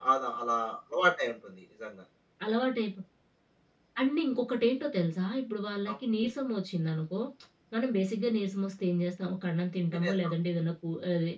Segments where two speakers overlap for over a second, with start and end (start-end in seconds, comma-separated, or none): none